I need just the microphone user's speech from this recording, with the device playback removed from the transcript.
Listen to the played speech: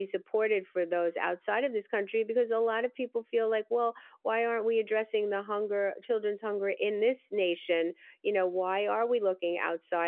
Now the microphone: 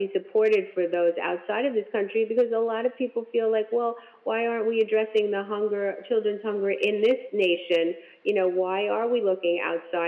none

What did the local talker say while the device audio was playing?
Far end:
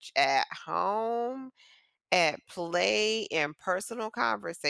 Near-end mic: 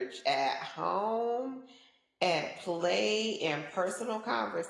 none

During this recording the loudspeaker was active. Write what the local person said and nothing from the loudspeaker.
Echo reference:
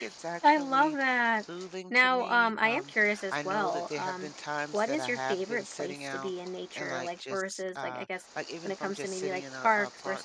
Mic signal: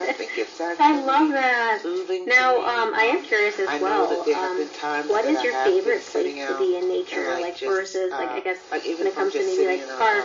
none

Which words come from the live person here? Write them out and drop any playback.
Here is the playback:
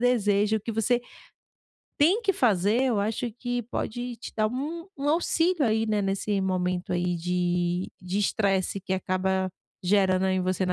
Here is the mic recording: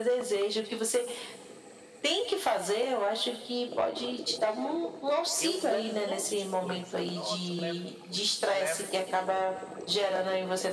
eu levo um monte de coisa. Nossa, eu levo os levo

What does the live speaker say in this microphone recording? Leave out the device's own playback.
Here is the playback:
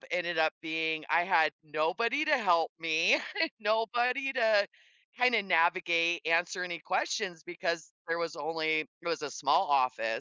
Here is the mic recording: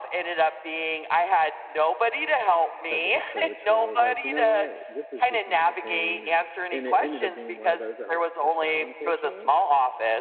type of approach where i was like you know what this is becoming a pain and and it ended up being one of those that i got pushed out unfortunately

